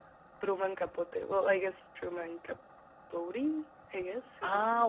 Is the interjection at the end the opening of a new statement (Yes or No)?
Yes